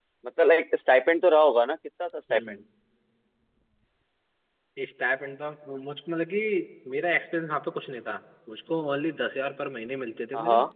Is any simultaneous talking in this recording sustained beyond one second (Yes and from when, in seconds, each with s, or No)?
No